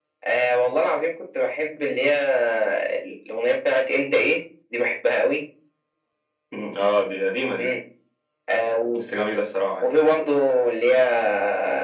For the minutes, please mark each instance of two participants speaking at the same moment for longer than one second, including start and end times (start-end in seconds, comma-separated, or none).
none